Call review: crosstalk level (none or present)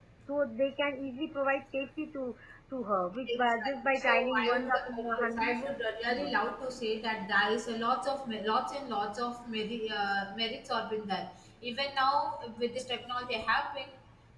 present